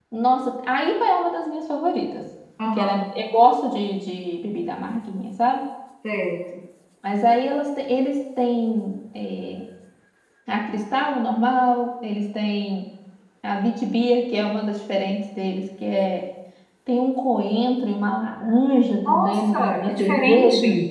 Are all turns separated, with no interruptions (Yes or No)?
No